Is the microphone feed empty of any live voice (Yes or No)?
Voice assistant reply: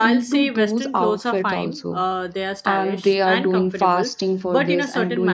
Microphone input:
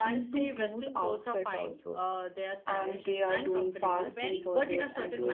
No